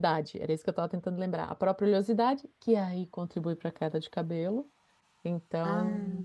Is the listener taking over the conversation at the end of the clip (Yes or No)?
No